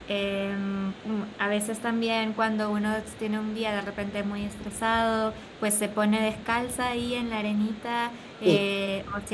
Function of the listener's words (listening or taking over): listening